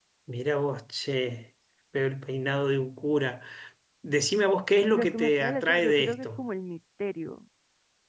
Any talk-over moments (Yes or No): Yes